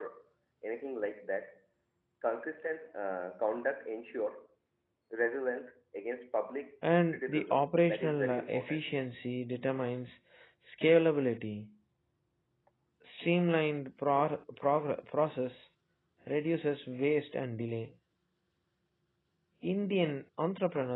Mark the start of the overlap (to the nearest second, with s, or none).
7 s